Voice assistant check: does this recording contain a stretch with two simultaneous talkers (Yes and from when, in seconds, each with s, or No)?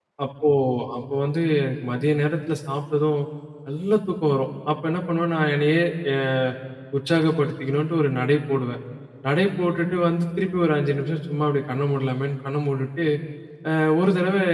No